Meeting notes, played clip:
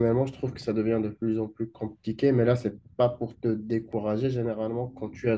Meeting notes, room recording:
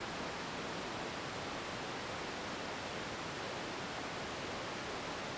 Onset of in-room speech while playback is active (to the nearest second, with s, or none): none